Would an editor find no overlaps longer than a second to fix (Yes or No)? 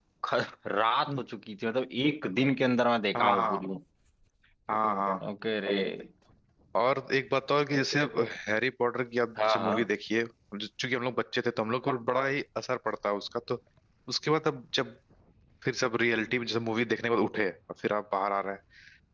Yes